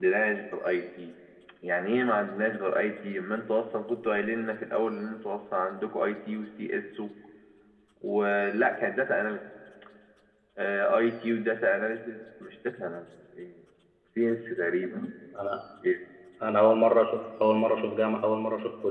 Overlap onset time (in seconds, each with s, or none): none